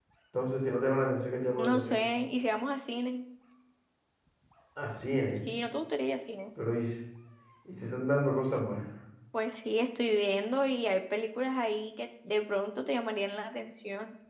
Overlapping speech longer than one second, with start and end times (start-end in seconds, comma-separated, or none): none